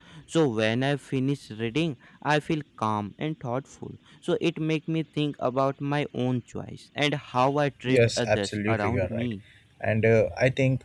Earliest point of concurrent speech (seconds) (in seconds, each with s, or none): 7.9 s